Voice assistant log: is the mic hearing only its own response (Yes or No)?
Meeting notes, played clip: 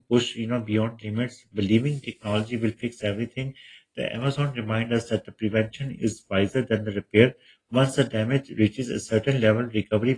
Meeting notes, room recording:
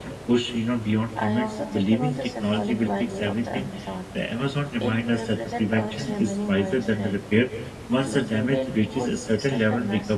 No